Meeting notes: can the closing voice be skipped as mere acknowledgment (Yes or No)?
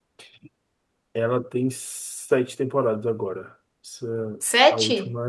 Yes